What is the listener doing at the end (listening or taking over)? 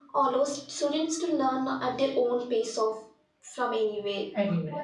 listening